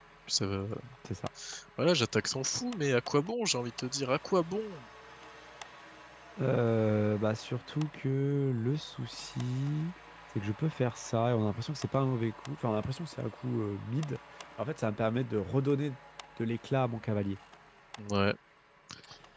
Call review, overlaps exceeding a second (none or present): none